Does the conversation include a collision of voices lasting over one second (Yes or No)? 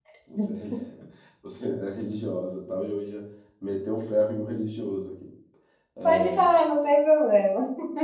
No